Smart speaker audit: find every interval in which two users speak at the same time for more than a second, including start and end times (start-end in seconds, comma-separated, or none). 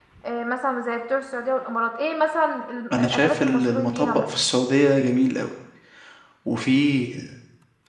2.9-4.3